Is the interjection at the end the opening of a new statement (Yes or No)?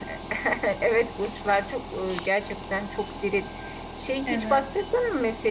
No